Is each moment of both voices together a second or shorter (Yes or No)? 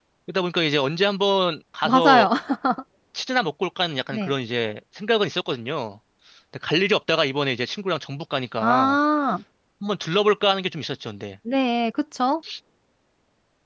Yes